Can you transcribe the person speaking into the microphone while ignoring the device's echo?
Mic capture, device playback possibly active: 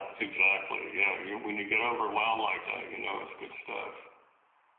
none

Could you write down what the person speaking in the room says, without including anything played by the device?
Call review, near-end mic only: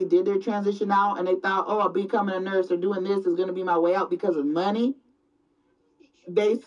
none

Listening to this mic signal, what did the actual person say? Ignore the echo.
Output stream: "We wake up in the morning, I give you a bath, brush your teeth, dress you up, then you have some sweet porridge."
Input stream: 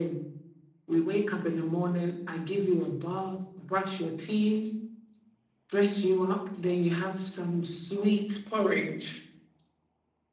none

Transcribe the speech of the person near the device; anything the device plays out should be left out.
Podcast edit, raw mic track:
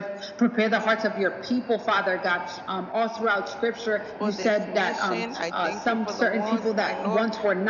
for this mission. I thank you for the ones, my Lord,

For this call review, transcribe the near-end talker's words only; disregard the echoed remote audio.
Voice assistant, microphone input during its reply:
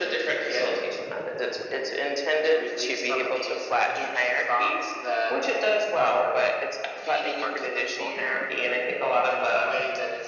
none

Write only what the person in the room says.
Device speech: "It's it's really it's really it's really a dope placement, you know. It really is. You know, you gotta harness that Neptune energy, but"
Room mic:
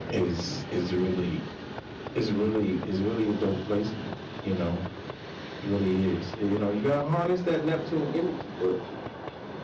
none

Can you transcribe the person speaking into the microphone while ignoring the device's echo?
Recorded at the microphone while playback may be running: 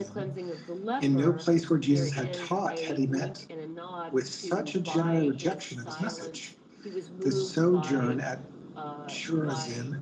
none

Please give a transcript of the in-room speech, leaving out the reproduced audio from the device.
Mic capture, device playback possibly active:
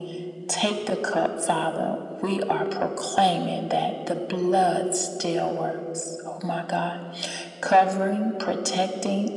none

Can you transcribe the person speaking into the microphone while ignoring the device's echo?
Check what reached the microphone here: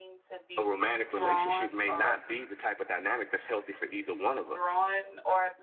a romantic relationship may not be the type of dynamic that's healthy for either one of us.

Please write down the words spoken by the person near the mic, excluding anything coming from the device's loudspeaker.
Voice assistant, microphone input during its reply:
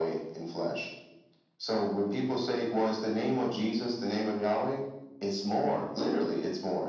none

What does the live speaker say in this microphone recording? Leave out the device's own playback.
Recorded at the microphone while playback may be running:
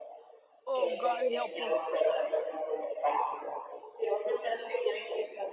Oh, God, help them.

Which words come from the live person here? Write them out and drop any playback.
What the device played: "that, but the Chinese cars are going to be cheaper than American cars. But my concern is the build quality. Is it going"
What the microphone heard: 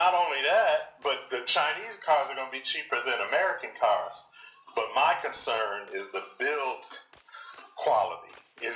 none

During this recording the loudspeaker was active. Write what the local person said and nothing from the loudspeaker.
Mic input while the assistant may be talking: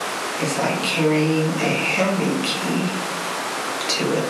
none

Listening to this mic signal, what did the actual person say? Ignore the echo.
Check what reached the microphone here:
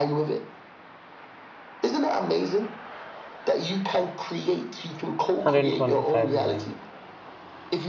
125 million.

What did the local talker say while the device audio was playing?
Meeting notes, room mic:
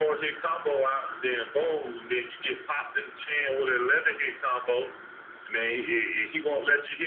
none

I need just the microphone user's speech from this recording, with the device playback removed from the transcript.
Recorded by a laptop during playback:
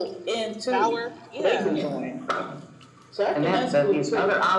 sour, yeah.

